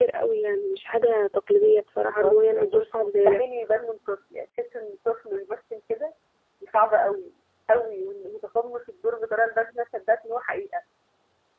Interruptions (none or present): present